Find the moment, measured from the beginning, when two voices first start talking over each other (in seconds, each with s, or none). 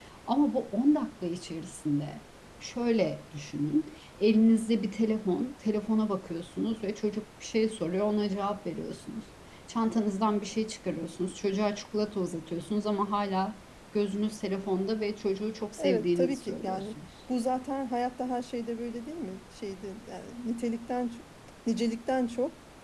15.8 s